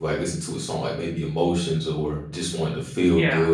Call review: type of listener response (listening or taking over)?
listening